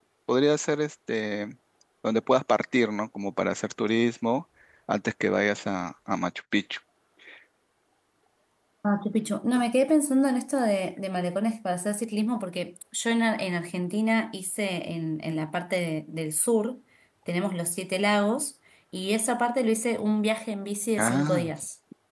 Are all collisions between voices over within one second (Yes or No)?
Yes